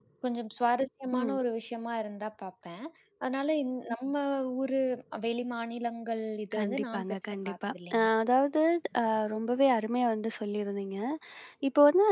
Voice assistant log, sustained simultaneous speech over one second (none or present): present